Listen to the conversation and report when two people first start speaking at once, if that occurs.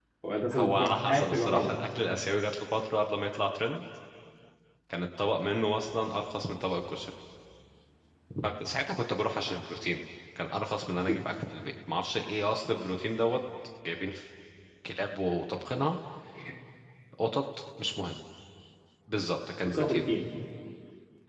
0.5 s

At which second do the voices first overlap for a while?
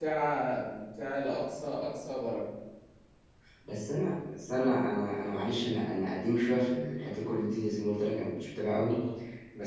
none

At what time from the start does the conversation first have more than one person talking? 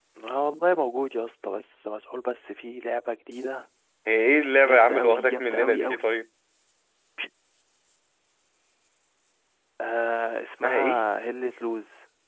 4.6 s

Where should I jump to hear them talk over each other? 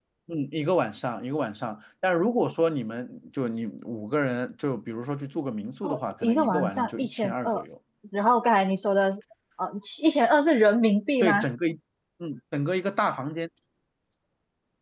5.8 s

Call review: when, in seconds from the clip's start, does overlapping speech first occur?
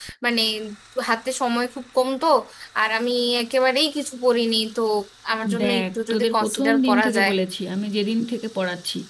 5.6 s

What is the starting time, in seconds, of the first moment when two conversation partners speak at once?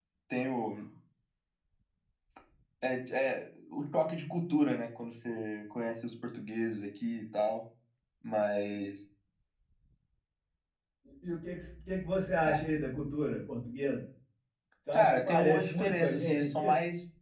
14.9 s

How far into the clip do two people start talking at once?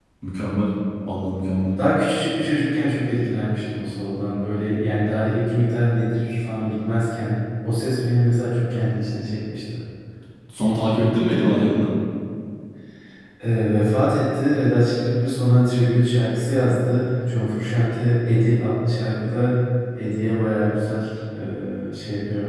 none

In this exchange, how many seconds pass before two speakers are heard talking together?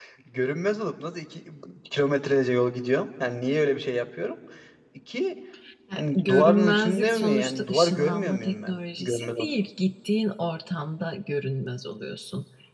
6.0 s

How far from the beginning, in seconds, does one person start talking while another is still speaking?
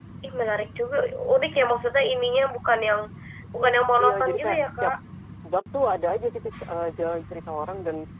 3.5 s

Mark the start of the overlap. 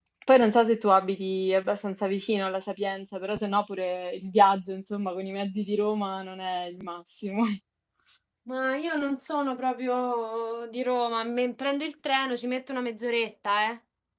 none

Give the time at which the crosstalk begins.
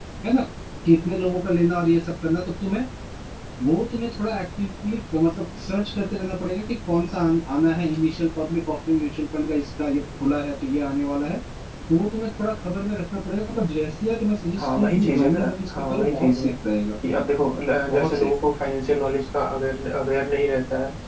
14.6 s

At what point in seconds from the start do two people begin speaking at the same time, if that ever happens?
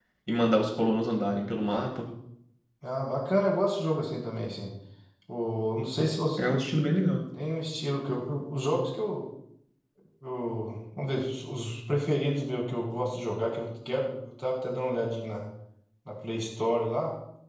none

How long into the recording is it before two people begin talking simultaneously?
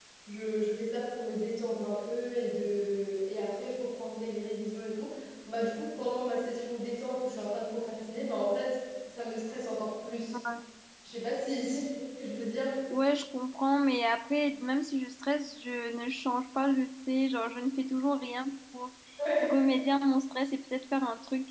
none

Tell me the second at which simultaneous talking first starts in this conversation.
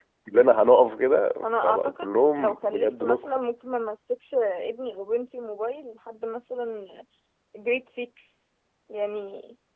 1.4 s

